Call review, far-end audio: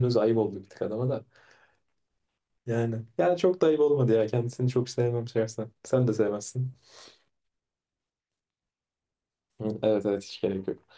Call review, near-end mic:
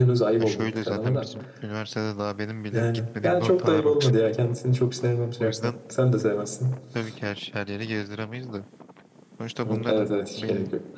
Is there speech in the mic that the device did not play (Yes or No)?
Yes